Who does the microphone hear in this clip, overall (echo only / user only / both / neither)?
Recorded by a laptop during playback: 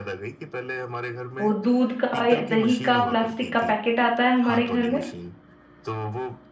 both